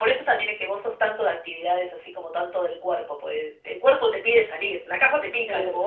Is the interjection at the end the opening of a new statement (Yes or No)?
Yes